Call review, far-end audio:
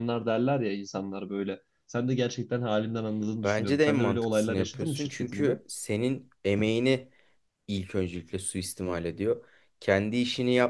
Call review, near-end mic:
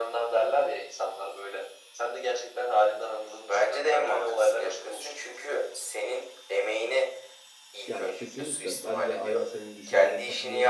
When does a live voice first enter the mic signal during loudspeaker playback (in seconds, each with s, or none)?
7.9 s